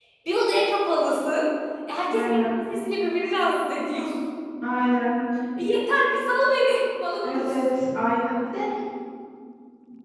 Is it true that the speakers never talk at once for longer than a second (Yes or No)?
Yes